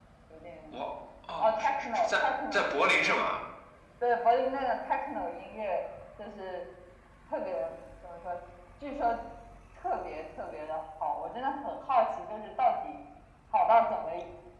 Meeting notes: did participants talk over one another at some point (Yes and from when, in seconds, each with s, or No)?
Yes, from 1.4 s